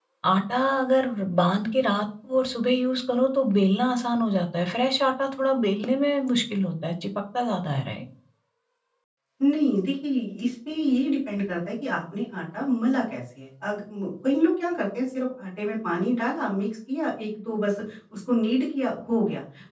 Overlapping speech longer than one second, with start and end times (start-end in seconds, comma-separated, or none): none